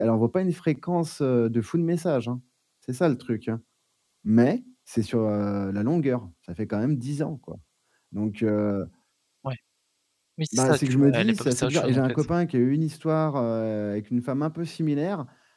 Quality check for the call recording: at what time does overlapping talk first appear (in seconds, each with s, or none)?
10.5 s